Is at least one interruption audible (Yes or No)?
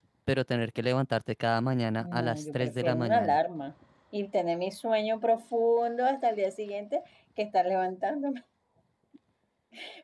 Yes